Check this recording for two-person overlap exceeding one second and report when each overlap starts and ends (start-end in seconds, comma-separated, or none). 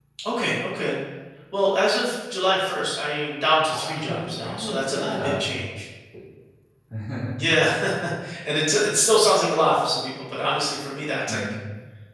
3.7-5.3